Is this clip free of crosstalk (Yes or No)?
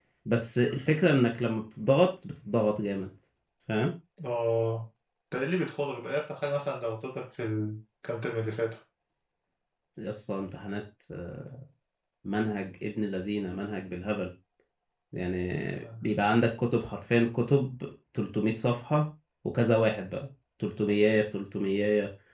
Yes